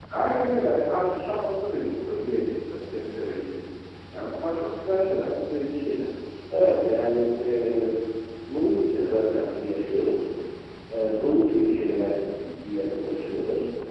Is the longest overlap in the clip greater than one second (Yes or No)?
No